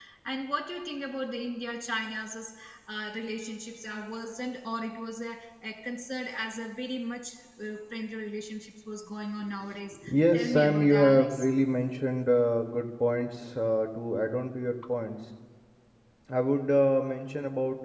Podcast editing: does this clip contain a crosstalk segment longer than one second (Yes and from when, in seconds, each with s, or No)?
Yes, from 9.9 s